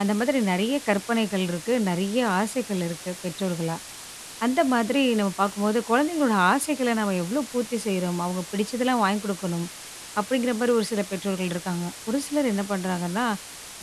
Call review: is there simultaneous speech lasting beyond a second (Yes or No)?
No